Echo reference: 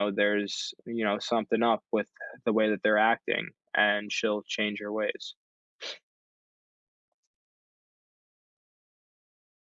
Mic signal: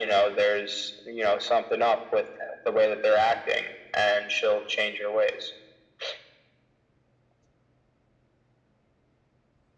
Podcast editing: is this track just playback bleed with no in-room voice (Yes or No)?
Yes